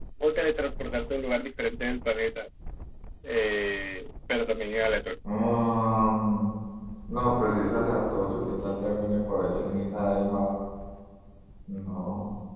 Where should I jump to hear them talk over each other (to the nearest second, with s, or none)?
none